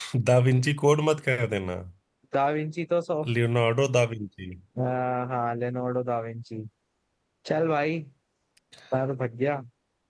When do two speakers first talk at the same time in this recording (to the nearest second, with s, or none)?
none